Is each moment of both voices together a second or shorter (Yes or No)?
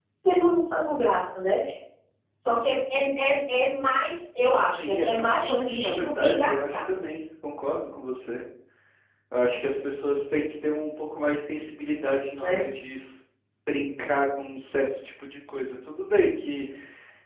No